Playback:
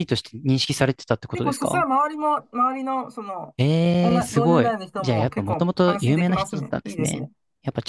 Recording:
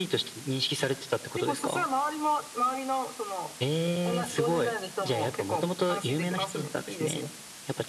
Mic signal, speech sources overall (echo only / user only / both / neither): echo only